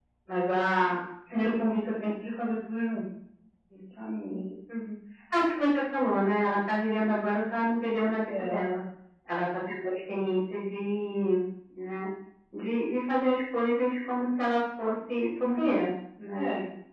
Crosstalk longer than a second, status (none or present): none